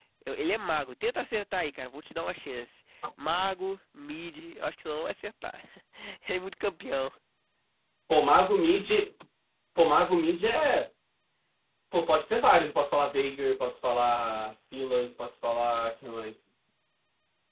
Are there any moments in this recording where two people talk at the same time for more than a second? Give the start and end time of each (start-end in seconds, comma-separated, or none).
none